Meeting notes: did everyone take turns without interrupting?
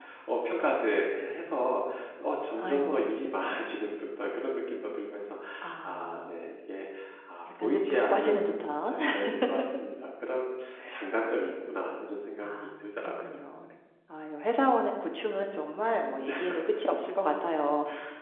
No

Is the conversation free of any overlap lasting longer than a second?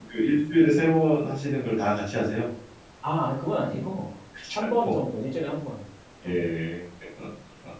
Yes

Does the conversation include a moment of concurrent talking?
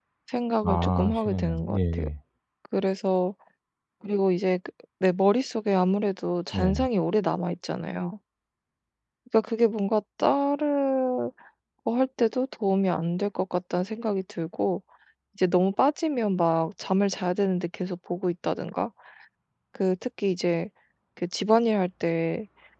Yes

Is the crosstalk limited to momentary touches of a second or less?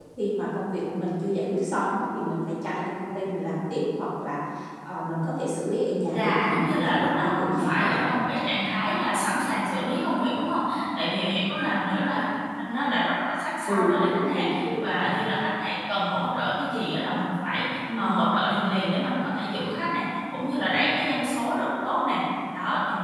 No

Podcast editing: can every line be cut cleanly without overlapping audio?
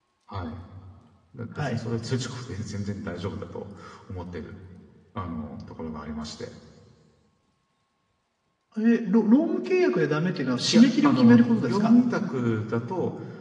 No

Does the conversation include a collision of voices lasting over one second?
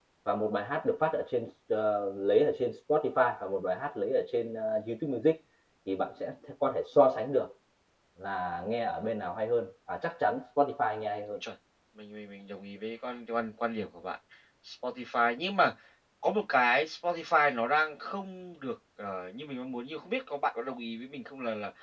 No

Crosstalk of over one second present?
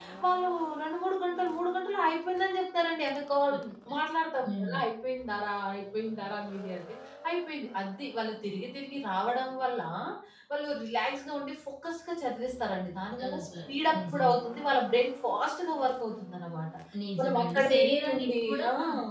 Yes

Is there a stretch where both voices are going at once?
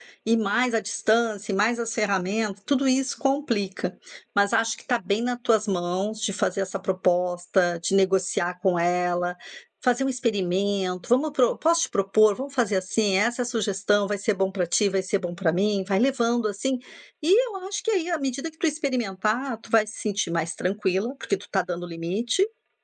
No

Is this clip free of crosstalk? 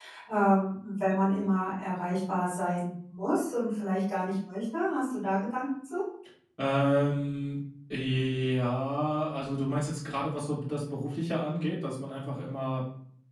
Yes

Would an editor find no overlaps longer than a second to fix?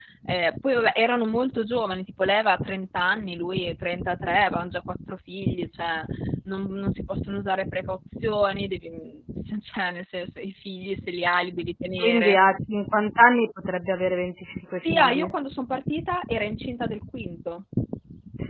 Yes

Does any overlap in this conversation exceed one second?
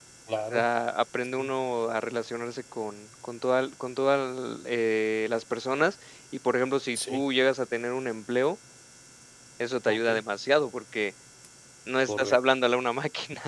No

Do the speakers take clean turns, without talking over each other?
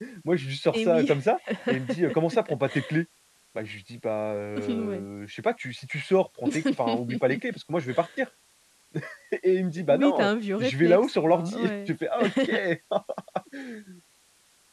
No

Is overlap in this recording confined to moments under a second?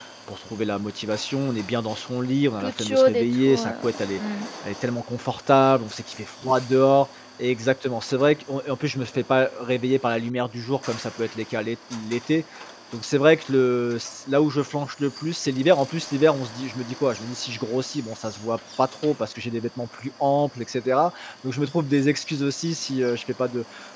No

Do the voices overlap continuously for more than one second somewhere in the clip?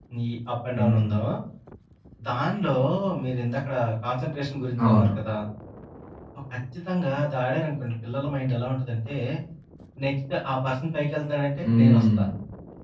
No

